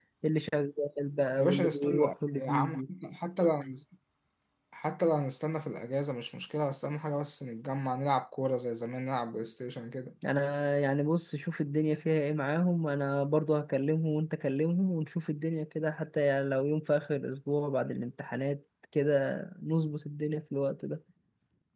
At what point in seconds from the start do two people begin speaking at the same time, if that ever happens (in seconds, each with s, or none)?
1.4 s